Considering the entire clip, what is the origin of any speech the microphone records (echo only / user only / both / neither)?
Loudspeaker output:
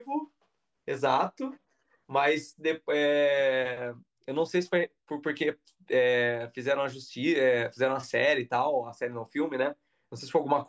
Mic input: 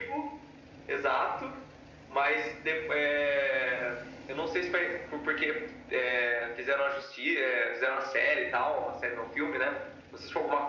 echo only